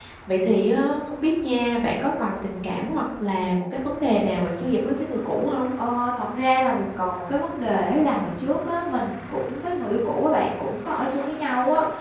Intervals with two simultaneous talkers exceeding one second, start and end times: none

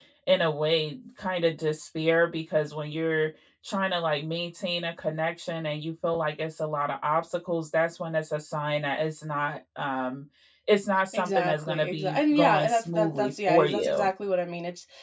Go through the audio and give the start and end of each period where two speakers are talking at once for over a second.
11.1-14.1

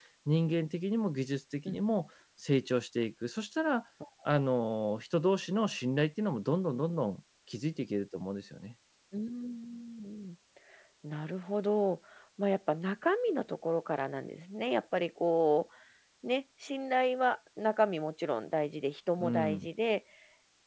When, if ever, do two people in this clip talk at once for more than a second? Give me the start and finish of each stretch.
none

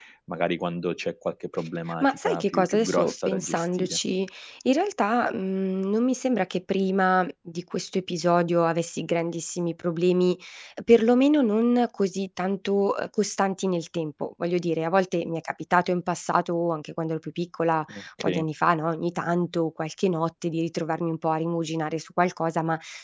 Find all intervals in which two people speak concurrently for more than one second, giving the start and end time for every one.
2.0-4.0

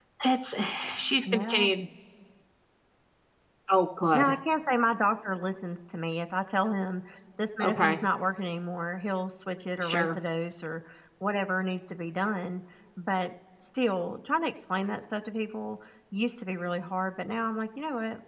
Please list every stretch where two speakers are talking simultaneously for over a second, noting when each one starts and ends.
none

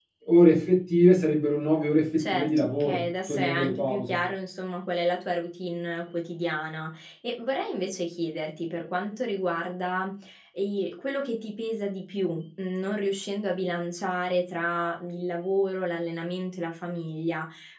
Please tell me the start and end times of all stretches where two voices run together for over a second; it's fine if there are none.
2.2-4.2

